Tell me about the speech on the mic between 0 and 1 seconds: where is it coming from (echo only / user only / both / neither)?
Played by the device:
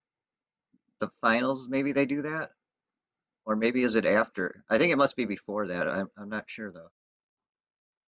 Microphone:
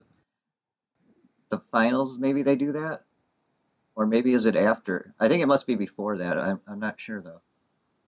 neither